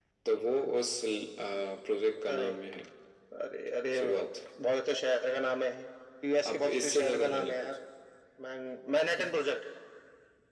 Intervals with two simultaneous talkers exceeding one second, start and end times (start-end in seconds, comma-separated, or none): 6.5-7.7